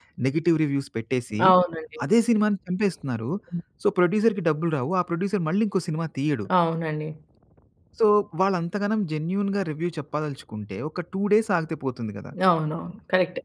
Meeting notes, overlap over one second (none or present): none